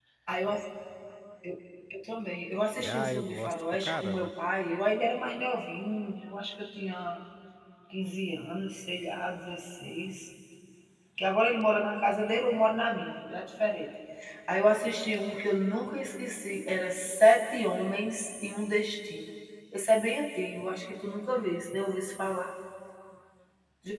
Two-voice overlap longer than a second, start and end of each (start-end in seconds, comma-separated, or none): 2.8-4.3